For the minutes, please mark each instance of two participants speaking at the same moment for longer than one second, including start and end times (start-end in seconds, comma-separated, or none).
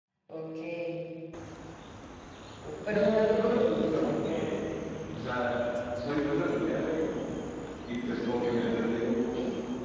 2.9-4.5